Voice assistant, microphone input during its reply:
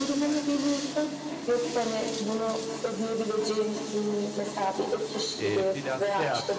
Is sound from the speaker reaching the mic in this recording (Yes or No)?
Yes